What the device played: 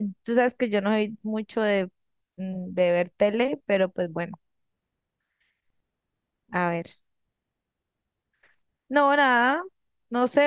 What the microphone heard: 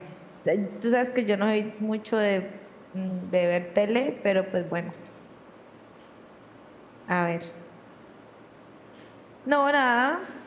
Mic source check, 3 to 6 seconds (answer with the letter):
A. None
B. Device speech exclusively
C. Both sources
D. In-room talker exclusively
B